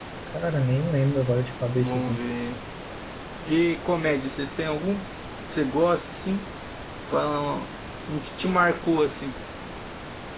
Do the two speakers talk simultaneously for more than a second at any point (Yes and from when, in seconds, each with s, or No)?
No